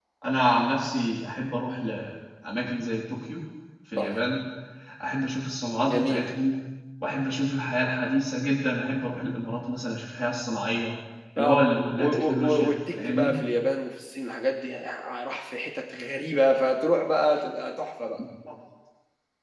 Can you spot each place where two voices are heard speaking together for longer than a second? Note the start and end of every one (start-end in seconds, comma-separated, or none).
12.0-13.3